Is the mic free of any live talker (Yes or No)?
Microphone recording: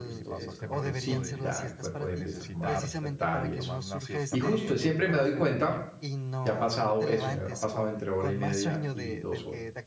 No